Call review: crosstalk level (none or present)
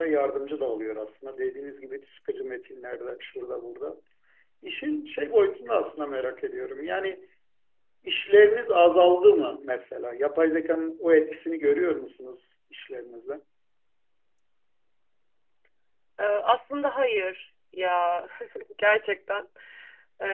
none